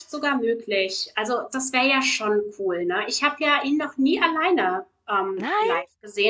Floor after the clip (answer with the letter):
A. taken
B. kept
B